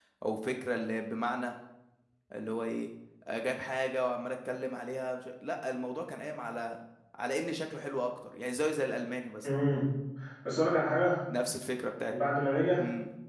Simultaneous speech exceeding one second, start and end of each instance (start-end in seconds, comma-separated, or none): none